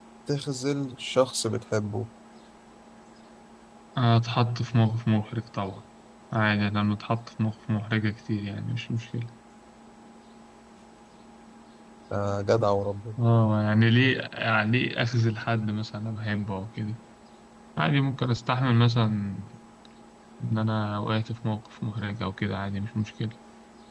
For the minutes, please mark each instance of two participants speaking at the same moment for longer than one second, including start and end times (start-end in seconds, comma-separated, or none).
none